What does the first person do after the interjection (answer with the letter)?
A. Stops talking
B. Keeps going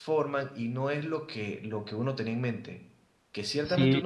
B